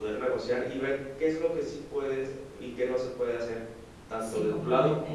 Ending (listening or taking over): listening